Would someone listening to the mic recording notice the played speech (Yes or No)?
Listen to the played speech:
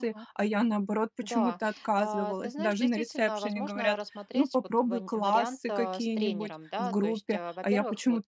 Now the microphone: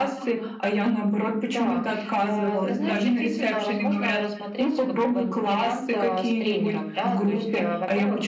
Yes